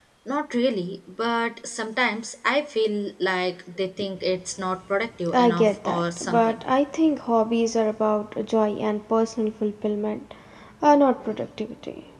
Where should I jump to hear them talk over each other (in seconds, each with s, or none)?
5.3 s